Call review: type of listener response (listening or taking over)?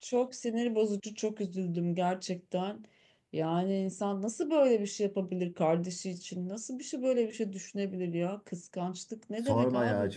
taking over